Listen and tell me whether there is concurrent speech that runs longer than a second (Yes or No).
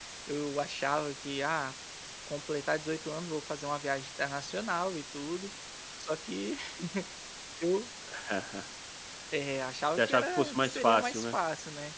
Yes